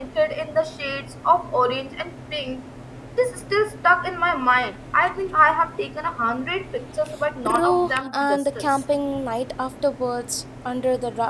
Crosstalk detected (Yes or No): Yes